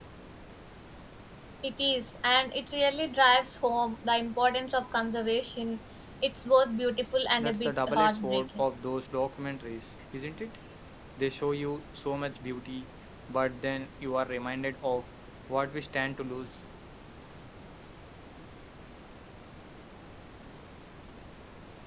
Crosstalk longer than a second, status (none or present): present